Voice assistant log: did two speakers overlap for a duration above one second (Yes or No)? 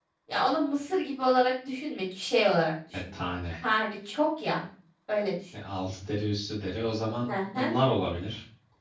No